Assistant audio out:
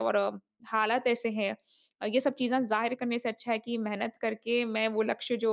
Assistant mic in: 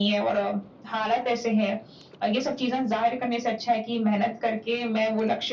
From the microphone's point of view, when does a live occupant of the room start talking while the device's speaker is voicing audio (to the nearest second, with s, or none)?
none